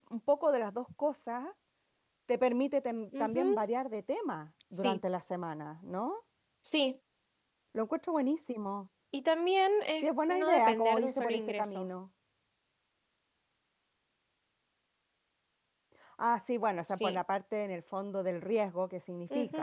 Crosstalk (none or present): present